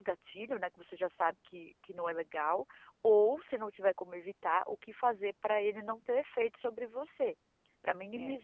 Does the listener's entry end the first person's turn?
No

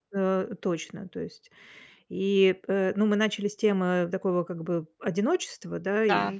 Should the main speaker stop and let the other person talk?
No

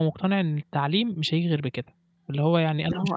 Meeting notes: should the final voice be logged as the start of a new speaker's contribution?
No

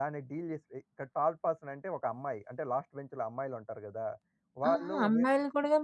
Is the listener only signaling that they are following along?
No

